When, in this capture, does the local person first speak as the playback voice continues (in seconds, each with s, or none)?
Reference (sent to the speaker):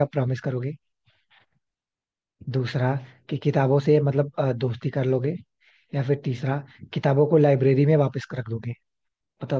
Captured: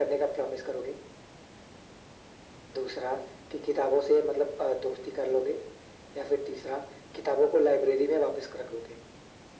none